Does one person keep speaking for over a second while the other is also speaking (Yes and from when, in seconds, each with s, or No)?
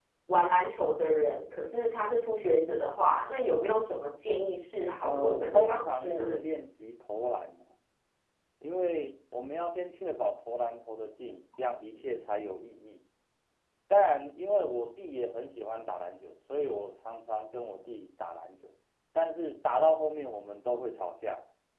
Yes, from 5.0 s